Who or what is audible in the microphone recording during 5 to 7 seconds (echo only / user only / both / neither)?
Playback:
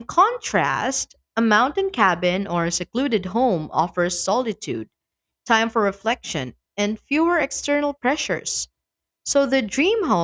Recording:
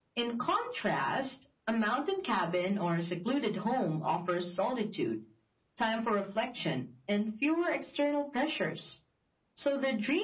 echo only